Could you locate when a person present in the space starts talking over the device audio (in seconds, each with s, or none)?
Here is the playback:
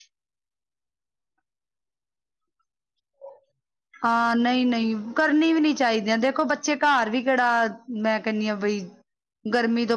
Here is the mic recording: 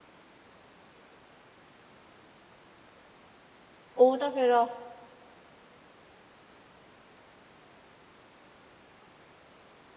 4.0 s